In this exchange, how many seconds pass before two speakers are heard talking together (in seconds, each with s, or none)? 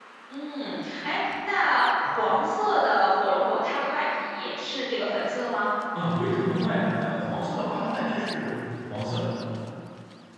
none